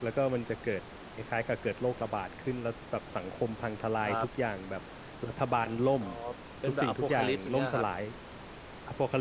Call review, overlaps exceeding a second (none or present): present